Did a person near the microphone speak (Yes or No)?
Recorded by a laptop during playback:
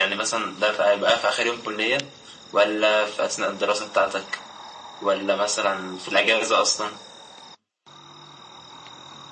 No